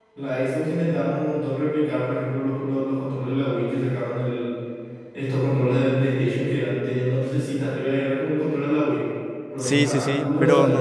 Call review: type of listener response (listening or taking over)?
taking over